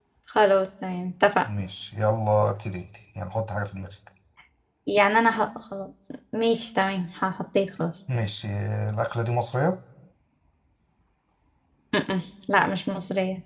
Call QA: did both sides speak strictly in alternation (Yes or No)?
Yes